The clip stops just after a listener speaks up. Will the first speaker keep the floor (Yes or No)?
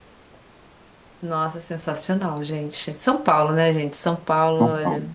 Yes